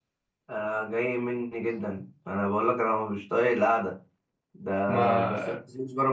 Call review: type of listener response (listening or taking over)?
listening